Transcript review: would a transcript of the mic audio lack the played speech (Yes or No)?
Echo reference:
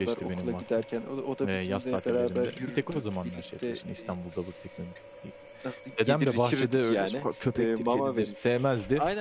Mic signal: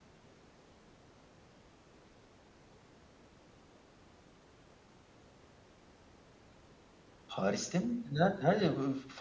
Yes